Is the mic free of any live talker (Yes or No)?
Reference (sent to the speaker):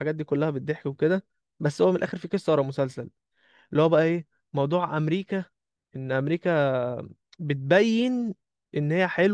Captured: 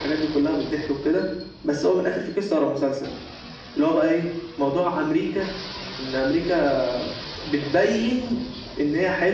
Yes